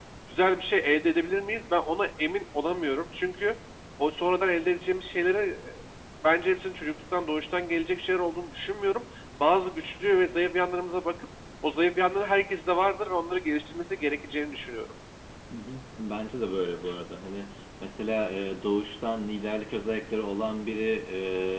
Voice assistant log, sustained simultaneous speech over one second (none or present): none